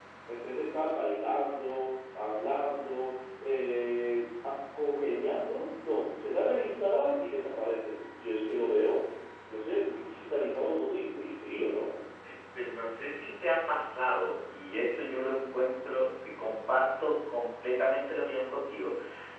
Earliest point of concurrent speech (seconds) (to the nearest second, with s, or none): none